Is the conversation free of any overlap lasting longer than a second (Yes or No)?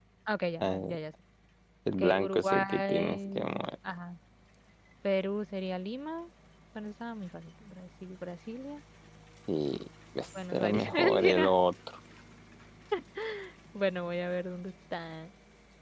No